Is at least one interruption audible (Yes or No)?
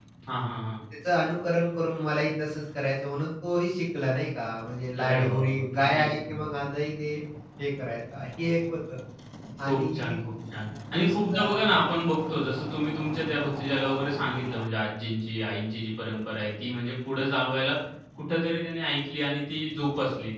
Yes